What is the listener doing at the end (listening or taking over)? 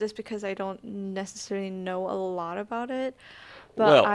taking over